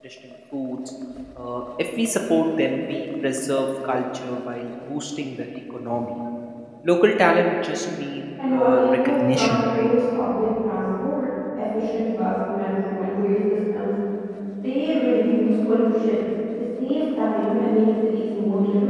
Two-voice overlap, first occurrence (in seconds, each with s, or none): 8.4 s